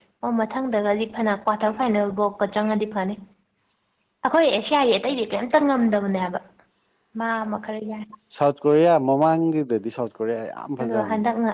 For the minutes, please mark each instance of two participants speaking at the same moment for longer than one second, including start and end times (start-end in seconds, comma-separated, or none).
none